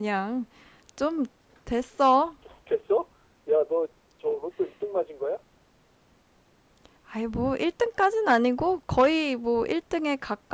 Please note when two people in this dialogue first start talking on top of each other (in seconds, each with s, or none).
none